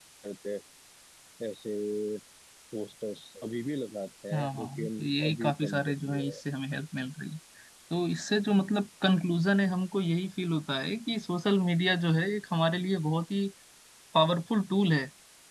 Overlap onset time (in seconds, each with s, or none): 4.3 s